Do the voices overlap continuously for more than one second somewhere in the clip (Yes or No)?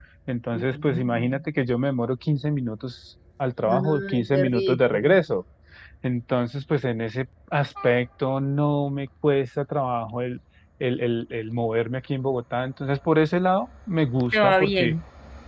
Yes